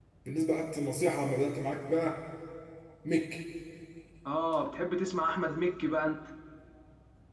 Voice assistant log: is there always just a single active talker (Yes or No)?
Yes